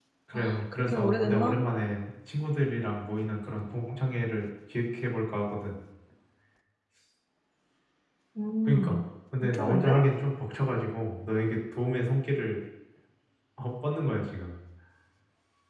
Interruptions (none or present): present